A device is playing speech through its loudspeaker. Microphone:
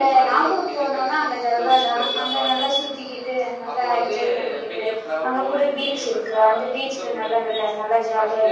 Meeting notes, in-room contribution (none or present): none